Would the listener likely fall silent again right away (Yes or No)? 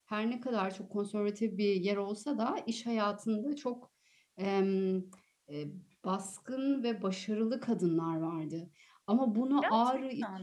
Yes